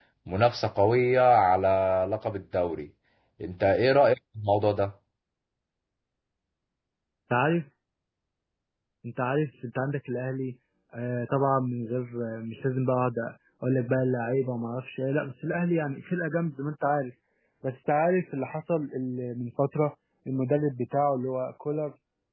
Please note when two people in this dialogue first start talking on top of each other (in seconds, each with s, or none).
none